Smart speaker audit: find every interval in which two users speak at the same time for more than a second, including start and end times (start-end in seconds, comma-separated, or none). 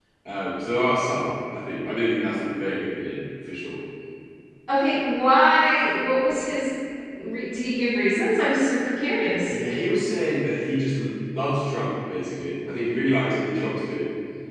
none